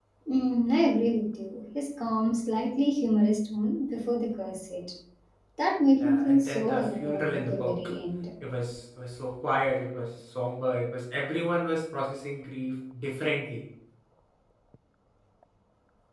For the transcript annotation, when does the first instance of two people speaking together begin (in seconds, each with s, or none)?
6.0 s